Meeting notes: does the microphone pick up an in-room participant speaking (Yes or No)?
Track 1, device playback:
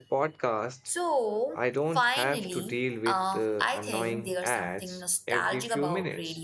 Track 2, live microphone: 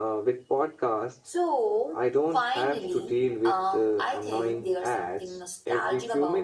No